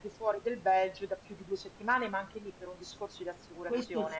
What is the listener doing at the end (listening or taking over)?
taking over